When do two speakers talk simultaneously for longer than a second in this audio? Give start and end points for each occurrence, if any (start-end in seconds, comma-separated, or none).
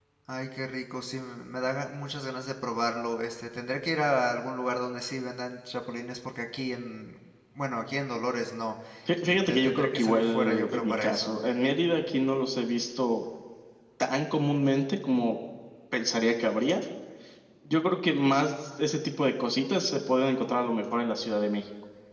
9.2-11.3